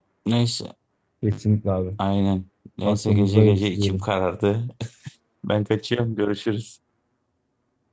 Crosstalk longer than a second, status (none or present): present